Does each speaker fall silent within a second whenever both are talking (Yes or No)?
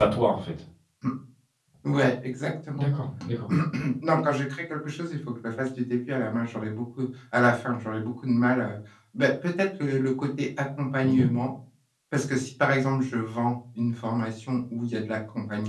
Yes